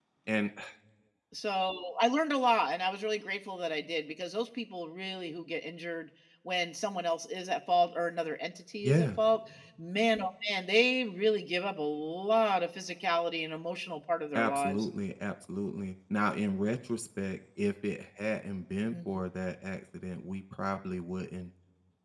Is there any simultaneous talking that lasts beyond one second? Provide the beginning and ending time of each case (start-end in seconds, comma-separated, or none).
none